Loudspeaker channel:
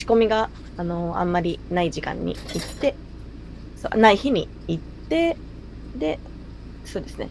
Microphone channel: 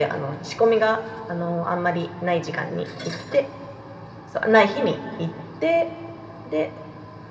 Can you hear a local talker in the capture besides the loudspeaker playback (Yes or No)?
No